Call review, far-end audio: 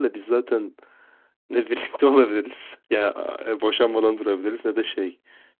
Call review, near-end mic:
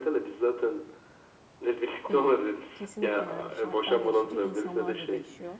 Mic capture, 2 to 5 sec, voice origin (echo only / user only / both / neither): both